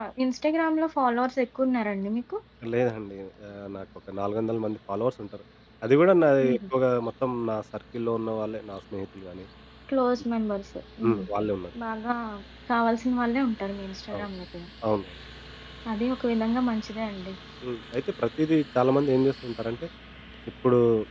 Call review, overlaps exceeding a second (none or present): none